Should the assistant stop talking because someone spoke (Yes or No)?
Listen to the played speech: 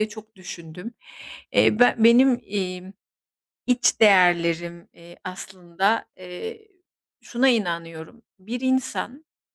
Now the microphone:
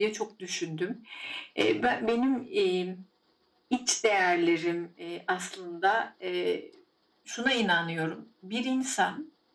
No